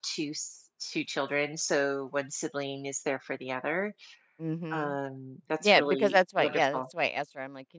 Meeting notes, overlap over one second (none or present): present